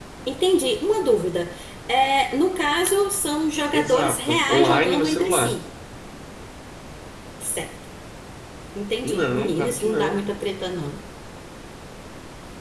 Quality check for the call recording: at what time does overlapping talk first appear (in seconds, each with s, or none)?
3.7 s